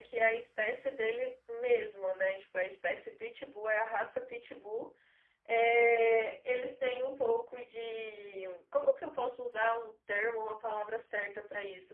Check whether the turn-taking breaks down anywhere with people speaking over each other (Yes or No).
No